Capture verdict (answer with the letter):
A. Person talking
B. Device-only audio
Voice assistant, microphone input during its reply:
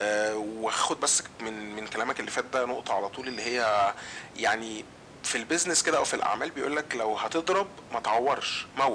B